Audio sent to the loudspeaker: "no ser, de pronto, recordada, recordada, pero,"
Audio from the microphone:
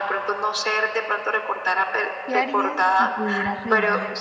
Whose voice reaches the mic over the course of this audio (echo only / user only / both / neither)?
both